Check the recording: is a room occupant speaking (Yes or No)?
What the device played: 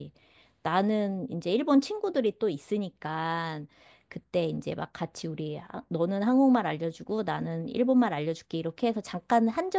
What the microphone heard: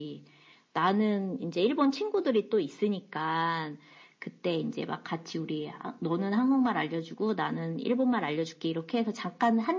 No